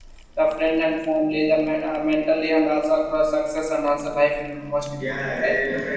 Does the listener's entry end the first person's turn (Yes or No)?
Yes